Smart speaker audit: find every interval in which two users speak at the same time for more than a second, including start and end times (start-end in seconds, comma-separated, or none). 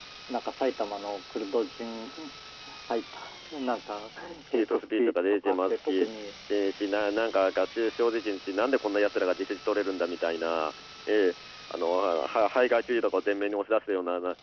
4.5-6.1